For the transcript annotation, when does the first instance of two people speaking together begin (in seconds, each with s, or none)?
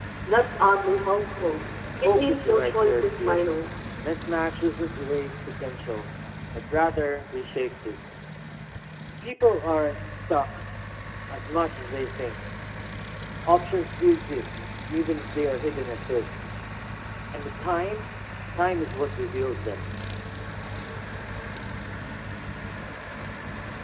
2.1 s